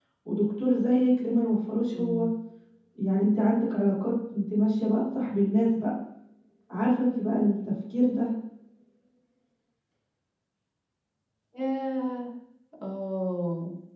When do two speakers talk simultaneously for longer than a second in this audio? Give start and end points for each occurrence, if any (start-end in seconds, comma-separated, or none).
none